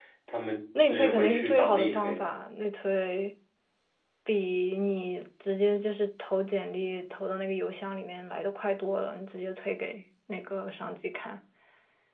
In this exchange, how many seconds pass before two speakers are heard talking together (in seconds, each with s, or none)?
0.8 s